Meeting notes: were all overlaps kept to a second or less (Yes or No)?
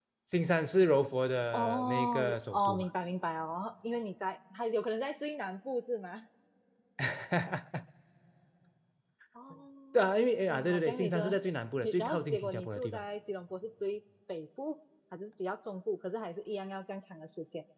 No